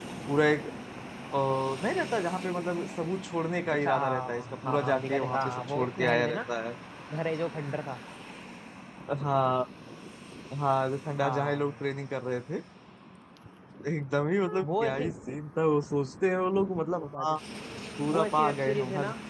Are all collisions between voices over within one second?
No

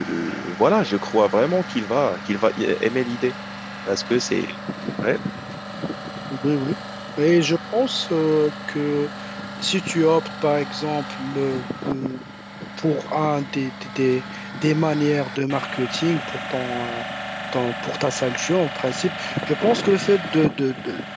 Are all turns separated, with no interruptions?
Yes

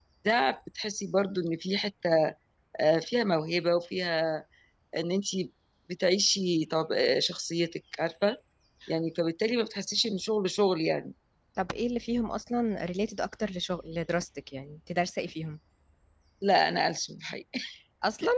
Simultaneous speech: No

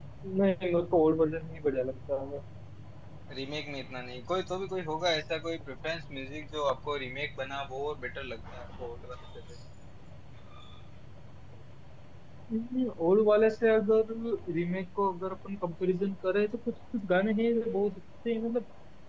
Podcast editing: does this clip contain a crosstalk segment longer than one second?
No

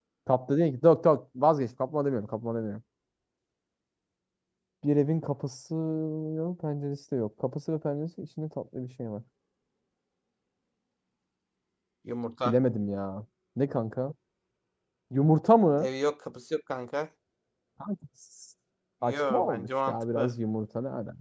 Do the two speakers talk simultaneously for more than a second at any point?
Yes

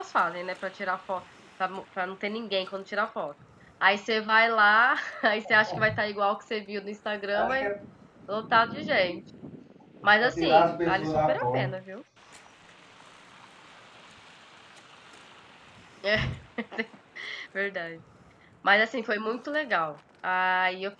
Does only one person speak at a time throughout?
No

